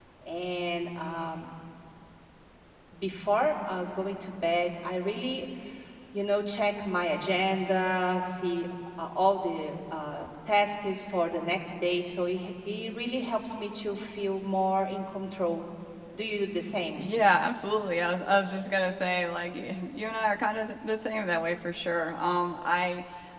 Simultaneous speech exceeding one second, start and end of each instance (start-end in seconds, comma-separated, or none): none